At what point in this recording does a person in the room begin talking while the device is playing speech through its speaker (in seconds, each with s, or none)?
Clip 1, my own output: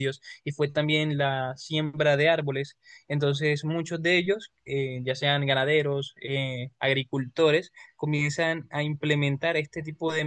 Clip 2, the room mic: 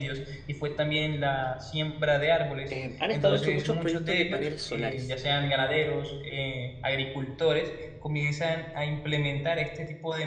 2.7 s